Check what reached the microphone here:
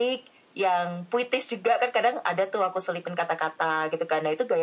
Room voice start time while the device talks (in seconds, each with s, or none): none